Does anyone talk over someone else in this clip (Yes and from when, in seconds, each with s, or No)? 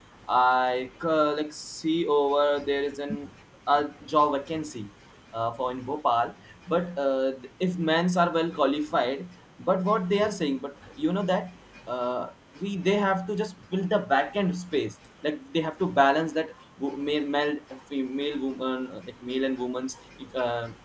No